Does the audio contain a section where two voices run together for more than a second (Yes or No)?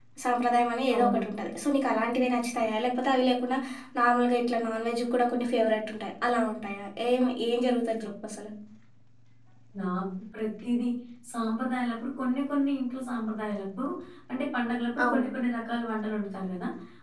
No